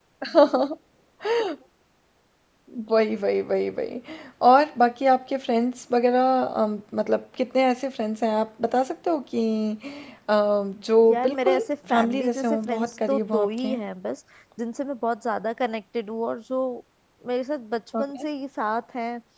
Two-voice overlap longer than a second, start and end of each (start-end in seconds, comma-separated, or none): 11.1-13.7